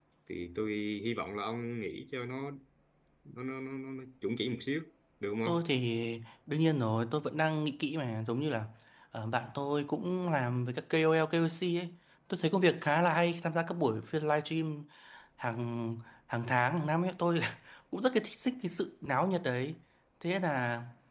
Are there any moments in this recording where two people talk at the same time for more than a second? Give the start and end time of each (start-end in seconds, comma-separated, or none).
none